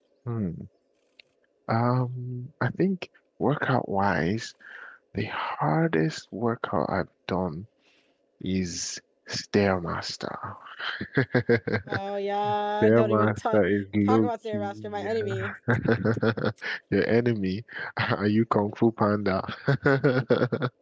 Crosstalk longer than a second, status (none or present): present